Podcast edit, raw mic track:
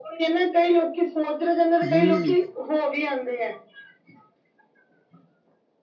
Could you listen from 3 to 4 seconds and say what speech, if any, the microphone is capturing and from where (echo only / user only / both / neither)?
echo only